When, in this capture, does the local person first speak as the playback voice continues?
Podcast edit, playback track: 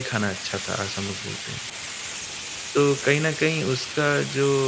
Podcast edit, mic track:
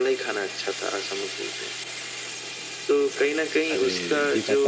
3.7 s

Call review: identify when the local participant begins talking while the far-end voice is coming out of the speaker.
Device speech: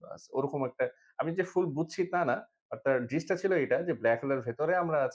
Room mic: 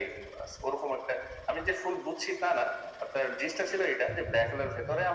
none

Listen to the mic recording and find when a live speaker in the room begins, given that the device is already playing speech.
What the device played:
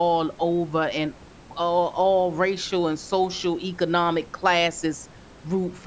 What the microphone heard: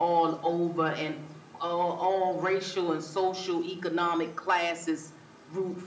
none

